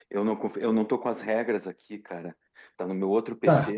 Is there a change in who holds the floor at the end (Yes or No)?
Yes